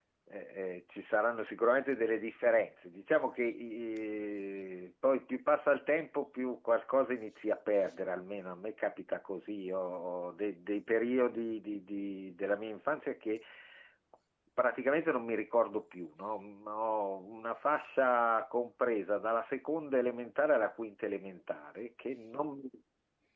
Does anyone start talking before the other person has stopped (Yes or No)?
No